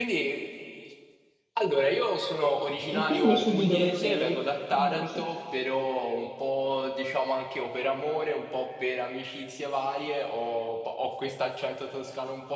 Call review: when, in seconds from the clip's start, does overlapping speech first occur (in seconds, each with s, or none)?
2.9 s